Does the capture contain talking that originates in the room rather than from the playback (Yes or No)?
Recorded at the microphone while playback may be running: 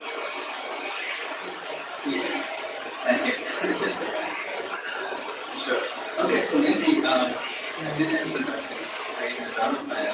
Yes